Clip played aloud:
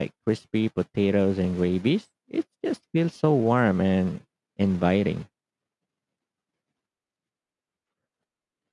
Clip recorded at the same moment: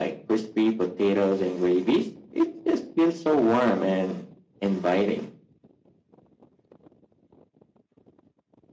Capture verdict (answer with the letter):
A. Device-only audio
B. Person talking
A